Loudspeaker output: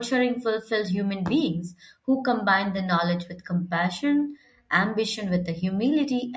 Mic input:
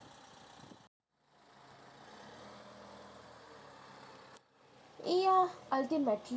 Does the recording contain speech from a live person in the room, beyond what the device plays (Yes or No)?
Yes